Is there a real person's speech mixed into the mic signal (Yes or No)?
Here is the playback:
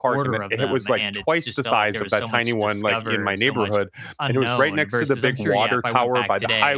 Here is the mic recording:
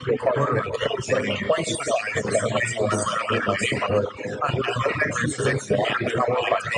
No